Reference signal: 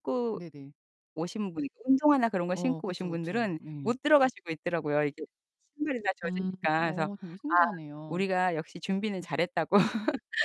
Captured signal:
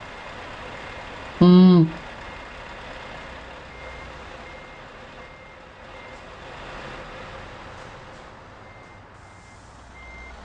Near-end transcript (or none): 음.